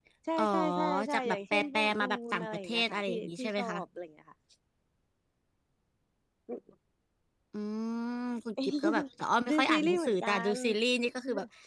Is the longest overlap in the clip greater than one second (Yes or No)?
Yes